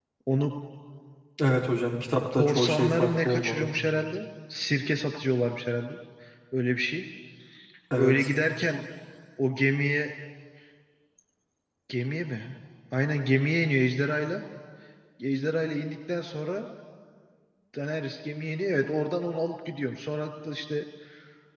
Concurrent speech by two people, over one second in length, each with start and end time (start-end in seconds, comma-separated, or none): 2.3-3.7